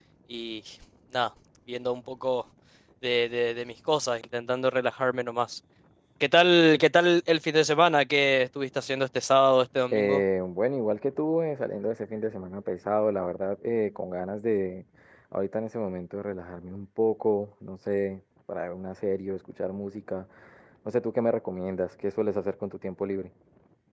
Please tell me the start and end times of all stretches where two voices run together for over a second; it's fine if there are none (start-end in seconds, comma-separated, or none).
none